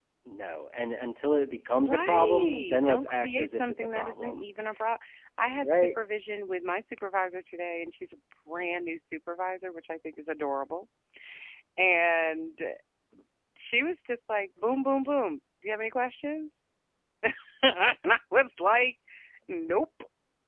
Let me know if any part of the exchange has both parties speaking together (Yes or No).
Yes